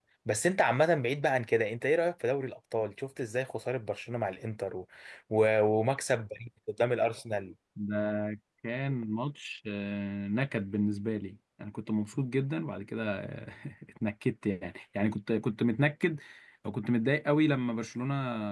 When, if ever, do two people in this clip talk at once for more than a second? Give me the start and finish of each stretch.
none

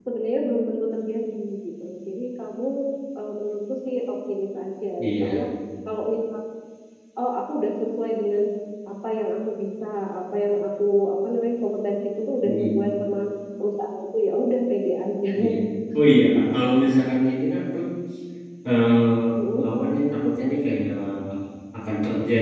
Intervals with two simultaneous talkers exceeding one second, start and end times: none

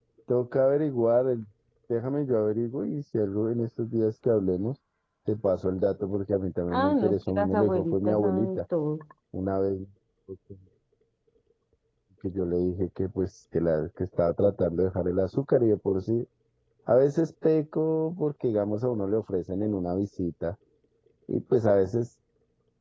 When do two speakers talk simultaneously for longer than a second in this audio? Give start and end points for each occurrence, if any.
6.7-8.6

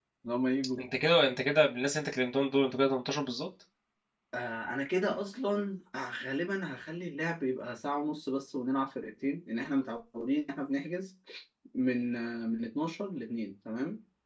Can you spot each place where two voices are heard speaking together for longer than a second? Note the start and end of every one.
none

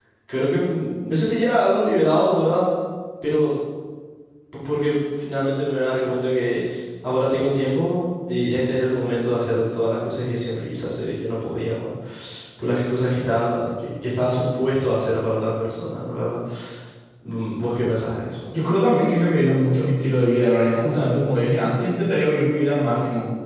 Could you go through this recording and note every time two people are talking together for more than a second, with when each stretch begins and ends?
none

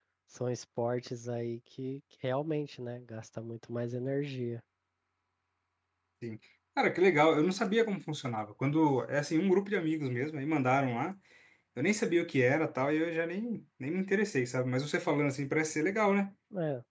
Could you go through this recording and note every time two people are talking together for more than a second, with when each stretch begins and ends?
none

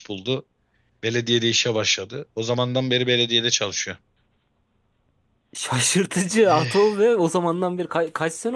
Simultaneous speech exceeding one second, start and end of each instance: none

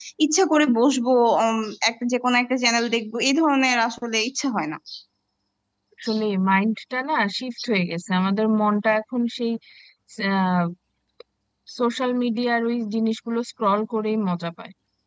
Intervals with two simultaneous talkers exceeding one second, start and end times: none

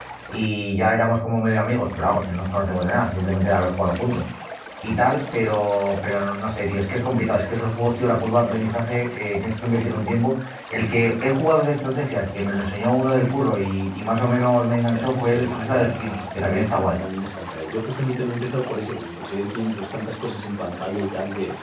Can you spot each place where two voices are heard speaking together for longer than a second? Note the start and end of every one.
14.9-16.9

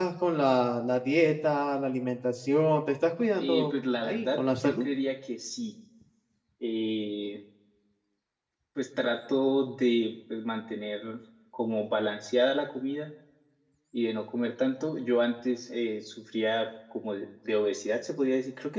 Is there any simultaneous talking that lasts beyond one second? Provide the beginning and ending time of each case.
3.4-4.9

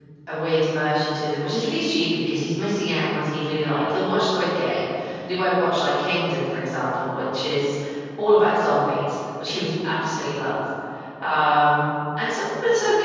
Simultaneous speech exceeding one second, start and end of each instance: none

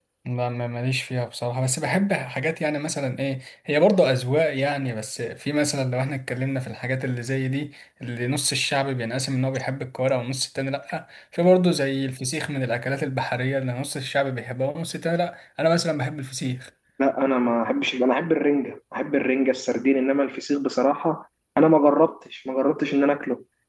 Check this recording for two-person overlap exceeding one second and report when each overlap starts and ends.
none

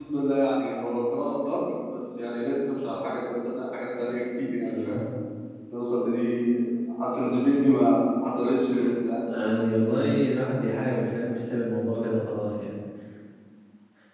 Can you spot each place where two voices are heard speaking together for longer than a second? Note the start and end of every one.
none

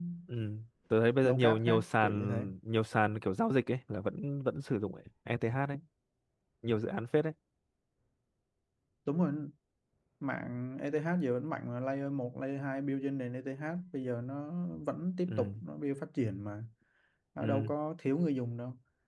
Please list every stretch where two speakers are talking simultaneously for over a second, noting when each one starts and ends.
1.2-2.5

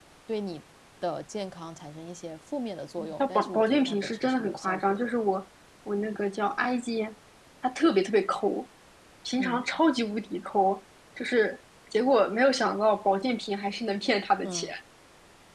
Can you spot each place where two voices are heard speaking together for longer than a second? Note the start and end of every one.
3.2-5.1

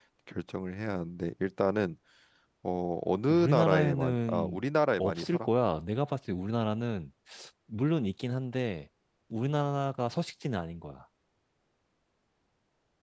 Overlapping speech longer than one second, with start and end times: 3.3-4.6

